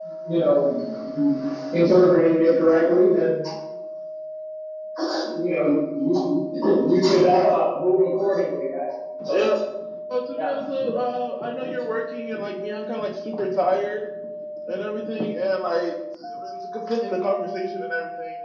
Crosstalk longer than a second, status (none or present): none